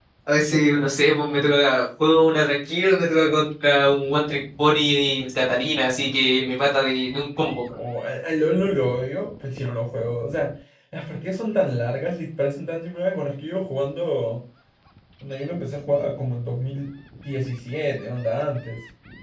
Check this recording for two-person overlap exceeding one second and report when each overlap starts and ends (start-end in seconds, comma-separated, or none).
none